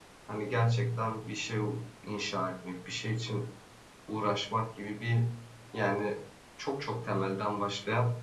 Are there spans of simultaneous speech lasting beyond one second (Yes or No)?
No